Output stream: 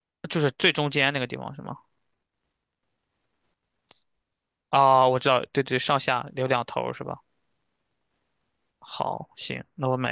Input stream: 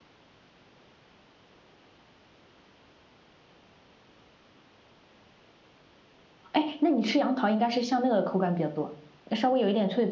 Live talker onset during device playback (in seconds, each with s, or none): 6.5 s